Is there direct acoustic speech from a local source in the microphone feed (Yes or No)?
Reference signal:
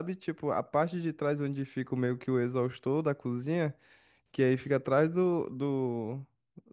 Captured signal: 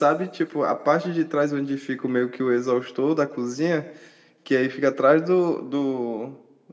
No